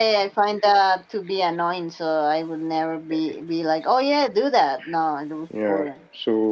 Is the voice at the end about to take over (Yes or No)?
Yes